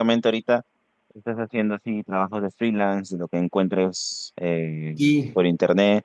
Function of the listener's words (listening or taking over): listening